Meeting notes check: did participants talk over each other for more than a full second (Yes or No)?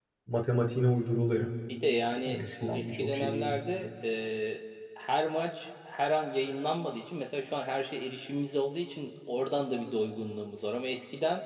Yes